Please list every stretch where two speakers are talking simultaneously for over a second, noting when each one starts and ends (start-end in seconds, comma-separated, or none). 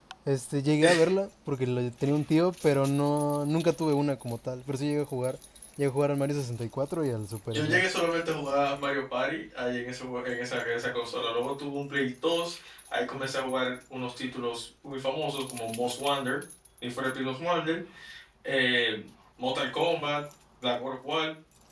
none